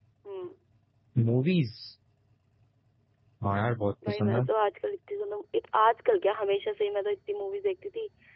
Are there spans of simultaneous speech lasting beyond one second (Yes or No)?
No